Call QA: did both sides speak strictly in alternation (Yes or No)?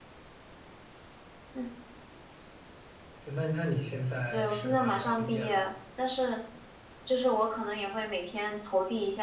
No